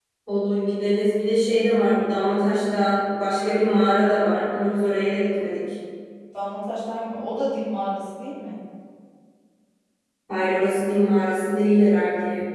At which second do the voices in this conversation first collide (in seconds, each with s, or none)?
none